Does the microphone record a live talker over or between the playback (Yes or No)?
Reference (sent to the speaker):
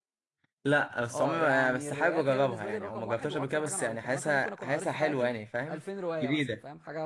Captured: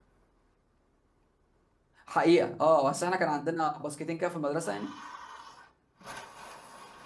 Yes